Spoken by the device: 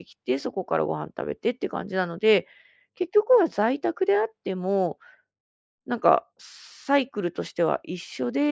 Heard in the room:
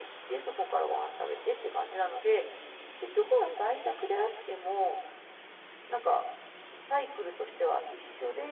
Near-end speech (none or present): none